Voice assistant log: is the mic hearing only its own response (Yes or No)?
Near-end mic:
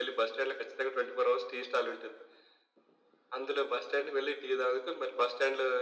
Yes